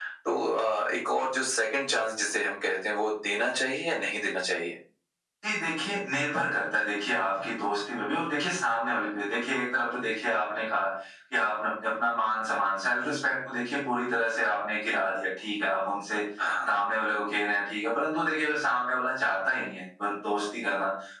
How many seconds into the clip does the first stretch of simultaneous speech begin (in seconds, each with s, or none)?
none